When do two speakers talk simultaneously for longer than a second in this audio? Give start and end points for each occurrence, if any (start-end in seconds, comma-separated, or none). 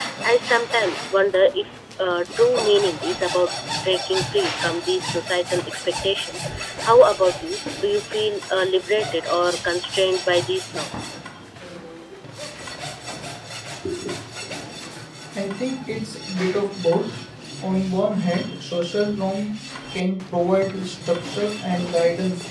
none